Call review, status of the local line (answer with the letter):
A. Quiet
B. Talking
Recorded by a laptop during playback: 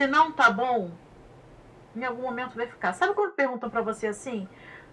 A